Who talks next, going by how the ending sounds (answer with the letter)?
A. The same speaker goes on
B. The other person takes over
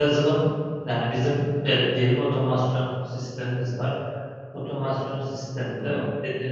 A